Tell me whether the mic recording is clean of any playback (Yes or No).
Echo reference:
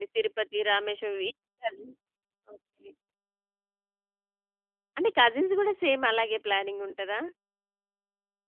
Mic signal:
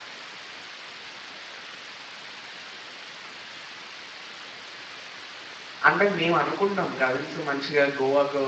Yes